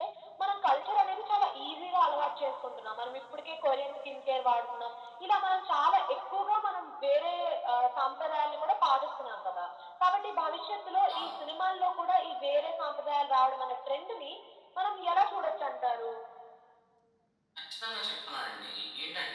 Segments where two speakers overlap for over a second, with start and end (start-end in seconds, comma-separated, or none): none